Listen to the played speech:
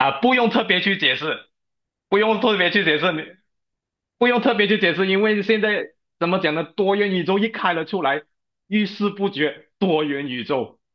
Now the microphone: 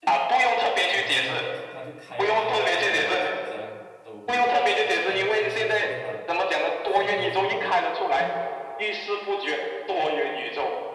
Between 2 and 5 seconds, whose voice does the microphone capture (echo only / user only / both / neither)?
both